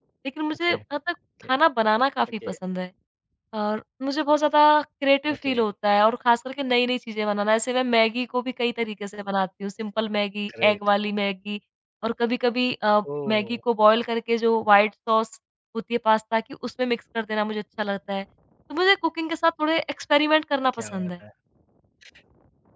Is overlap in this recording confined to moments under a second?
Yes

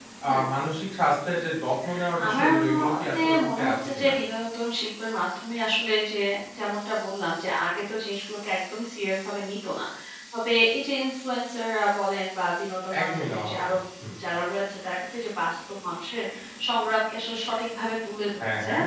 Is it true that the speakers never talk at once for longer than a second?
No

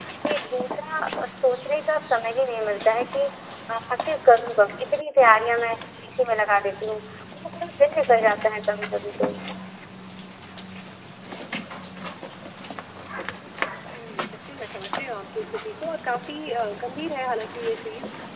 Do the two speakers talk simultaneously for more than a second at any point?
No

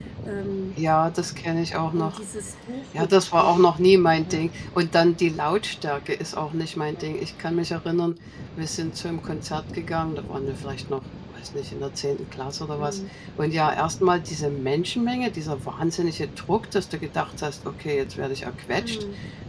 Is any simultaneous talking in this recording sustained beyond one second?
No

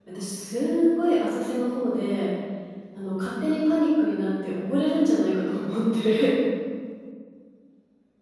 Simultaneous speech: No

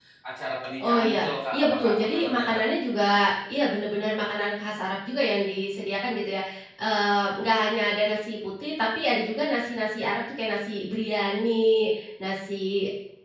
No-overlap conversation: No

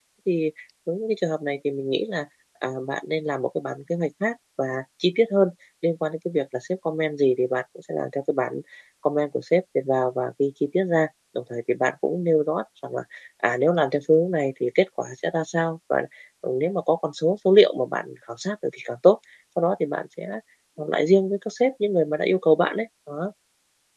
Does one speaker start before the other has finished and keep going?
No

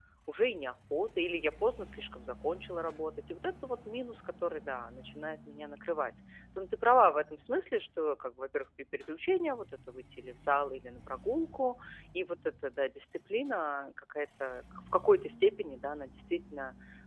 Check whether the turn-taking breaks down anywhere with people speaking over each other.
No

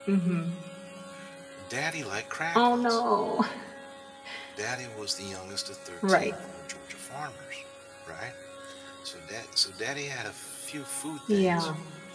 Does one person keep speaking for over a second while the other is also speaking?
No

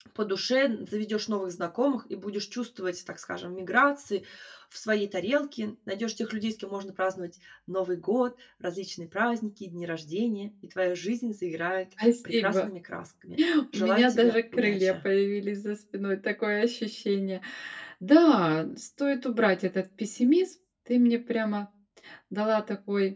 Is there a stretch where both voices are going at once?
Yes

